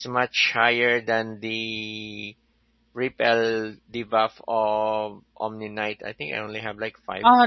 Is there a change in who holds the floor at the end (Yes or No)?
Yes